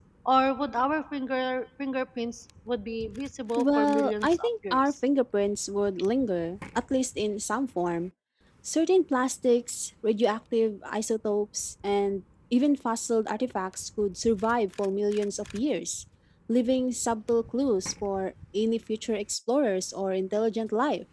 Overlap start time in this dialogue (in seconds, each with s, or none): 3.6 s